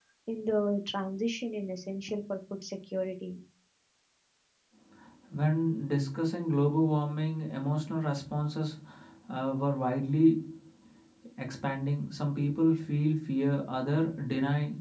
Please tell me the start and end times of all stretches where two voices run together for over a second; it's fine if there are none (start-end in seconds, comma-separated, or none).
none